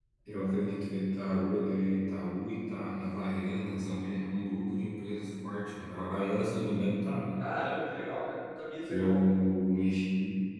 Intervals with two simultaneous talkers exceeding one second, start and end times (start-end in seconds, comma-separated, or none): none